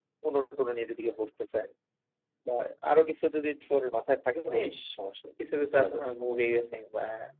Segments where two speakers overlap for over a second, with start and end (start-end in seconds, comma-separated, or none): none